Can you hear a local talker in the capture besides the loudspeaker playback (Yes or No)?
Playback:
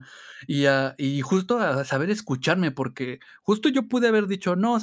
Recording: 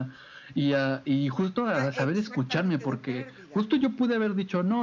Yes